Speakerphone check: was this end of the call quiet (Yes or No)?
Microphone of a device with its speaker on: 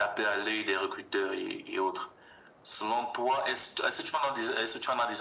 Yes